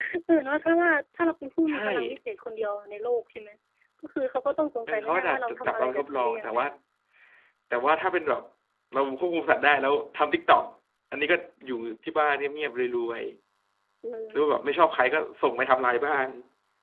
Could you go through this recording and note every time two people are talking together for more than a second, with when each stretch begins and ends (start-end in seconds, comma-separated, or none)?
4.9-6.6